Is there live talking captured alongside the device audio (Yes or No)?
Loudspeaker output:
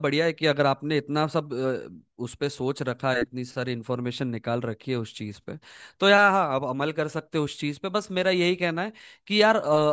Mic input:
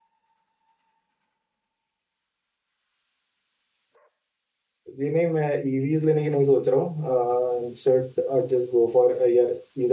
Yes